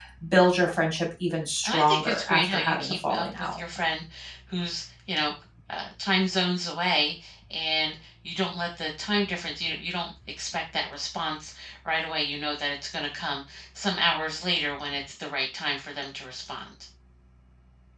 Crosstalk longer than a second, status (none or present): present